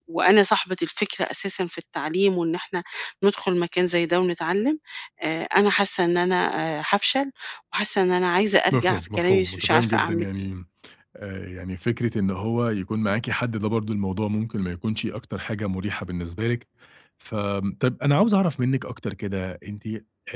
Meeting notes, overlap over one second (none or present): present